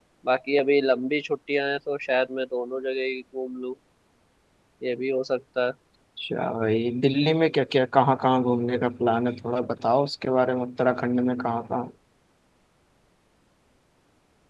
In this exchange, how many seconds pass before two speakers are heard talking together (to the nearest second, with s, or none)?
none